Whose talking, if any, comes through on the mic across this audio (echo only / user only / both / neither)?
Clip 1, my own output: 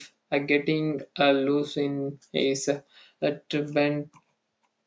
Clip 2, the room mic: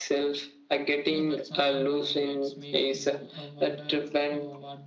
both